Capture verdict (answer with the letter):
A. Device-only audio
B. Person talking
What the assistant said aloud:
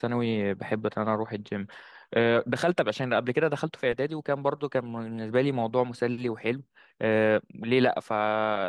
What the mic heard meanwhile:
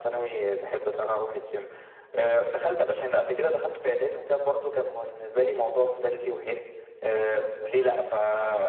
A